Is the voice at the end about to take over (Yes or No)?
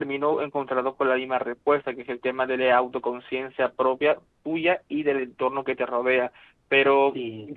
No